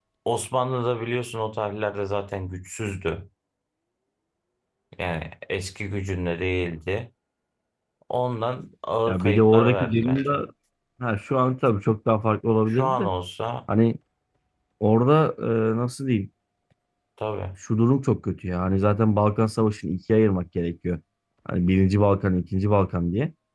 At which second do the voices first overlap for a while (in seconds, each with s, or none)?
9.1 s